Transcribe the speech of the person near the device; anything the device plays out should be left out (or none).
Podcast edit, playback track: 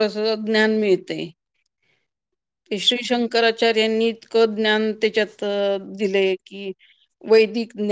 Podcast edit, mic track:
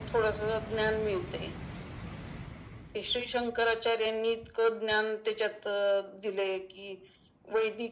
none